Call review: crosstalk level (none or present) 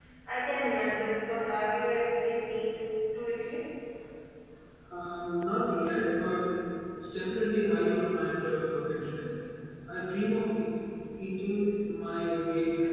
none